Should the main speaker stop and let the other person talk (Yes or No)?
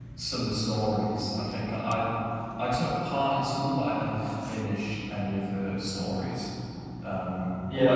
Yes